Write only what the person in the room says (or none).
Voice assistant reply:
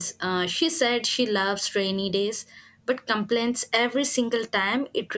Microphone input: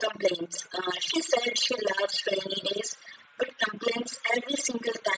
none